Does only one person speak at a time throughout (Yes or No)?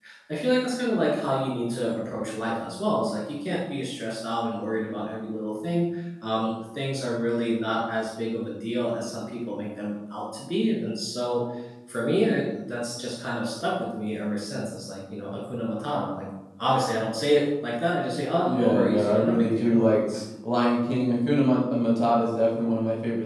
No